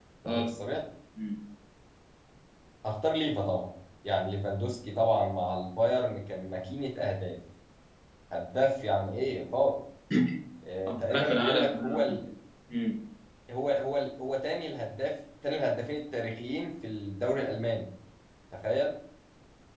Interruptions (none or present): present